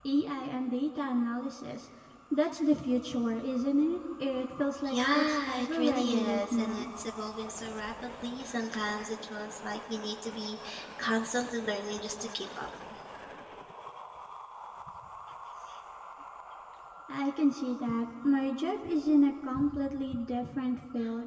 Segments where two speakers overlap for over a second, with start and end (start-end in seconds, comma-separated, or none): 4.9-6.9